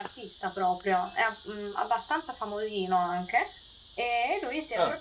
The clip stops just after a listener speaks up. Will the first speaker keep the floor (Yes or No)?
No